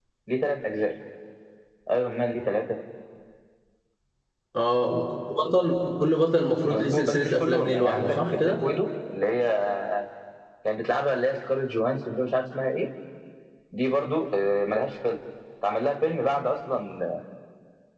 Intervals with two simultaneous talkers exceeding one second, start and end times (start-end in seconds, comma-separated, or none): 6.6-8.6